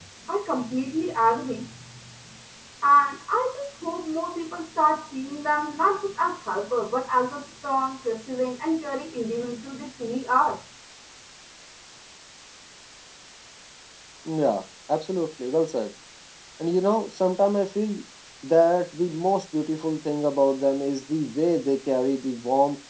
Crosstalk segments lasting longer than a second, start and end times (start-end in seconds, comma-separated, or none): none